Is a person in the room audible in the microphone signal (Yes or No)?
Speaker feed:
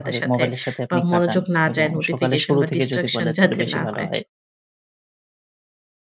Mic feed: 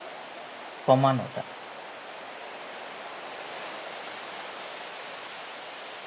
Yes